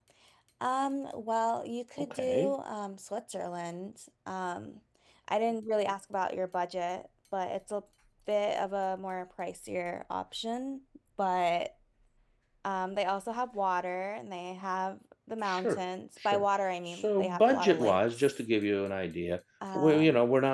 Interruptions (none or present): present